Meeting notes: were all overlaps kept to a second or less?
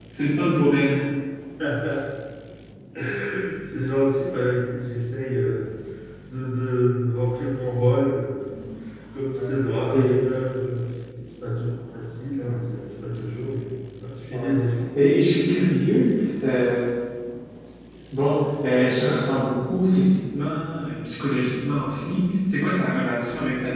Yes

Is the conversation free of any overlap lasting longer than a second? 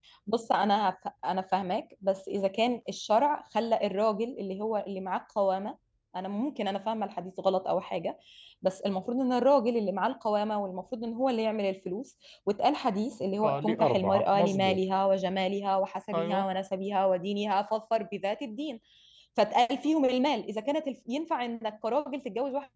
No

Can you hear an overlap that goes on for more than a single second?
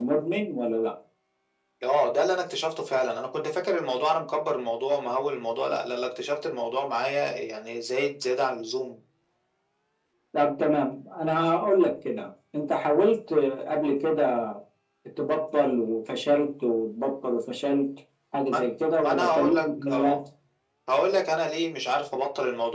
Yes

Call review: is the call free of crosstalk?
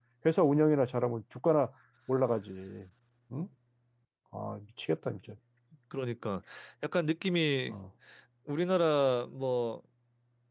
Yes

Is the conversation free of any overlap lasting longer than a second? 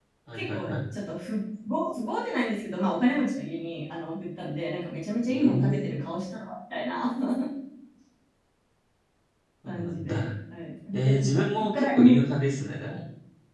No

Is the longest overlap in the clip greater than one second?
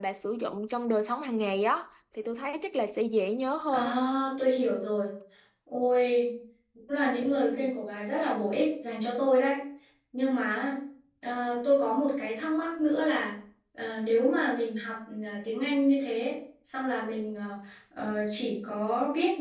No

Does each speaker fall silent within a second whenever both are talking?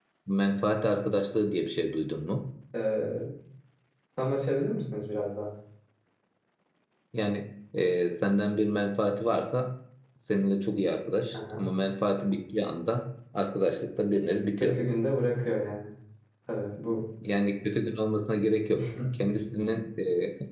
Yes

